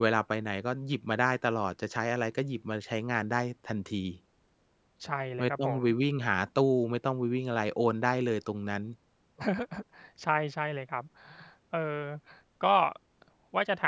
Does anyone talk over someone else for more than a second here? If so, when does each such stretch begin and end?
none

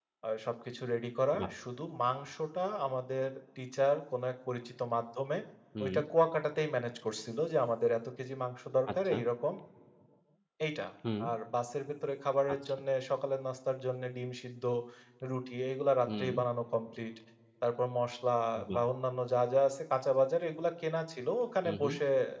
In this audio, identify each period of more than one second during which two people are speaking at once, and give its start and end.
none

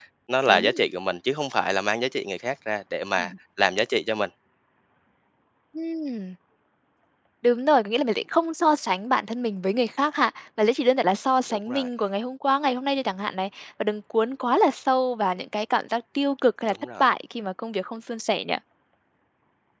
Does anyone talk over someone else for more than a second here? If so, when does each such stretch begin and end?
none

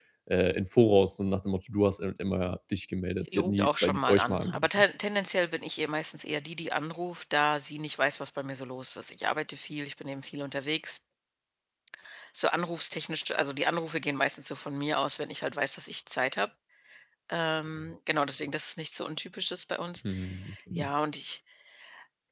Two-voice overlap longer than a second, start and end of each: 3.3-4.8

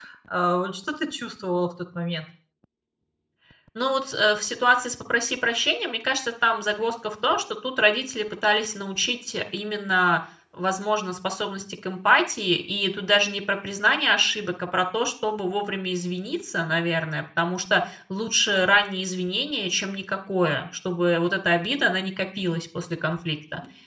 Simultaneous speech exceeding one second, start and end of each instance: none

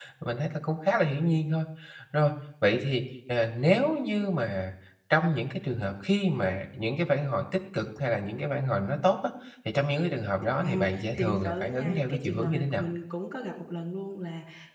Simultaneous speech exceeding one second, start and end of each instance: 10.6-12.8

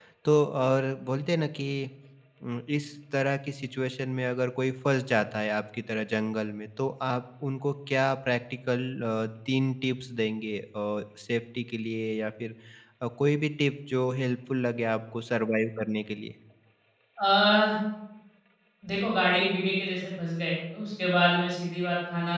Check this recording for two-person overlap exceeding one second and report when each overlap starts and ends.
none

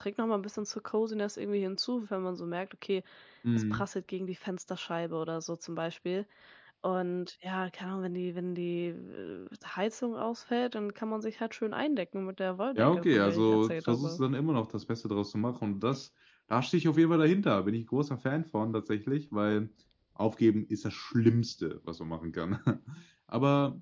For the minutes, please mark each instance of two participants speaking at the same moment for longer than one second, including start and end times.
12.8-14.2

